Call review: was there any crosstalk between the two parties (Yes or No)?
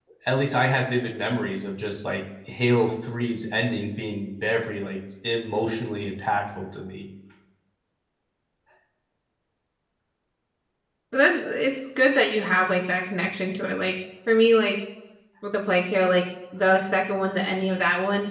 No